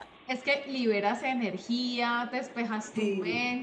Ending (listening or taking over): listening